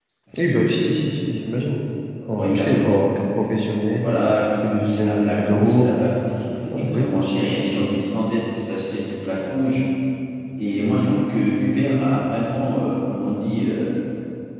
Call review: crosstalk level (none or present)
present